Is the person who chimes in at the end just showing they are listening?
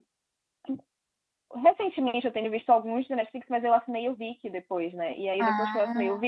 Yes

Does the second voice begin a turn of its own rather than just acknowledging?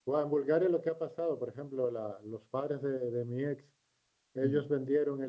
No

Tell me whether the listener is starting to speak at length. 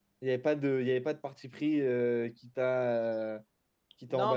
Yes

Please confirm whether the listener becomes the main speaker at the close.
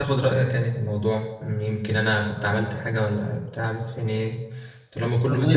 Yes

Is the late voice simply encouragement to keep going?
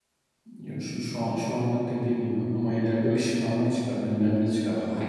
Yes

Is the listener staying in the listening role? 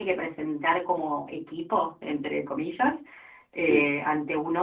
Yes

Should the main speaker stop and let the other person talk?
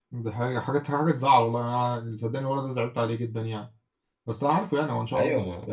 No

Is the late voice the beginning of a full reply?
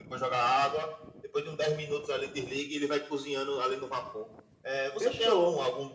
No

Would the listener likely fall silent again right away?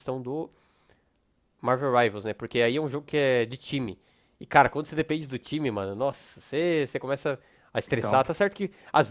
Yes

